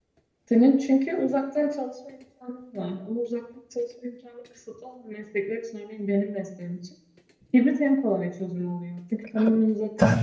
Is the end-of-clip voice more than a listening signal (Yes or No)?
Yes